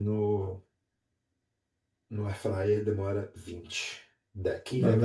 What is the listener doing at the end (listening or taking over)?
taking over